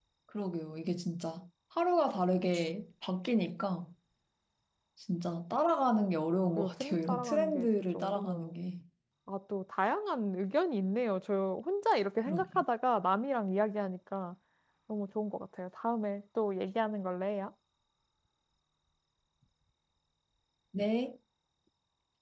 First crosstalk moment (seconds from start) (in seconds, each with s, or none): 6.6 s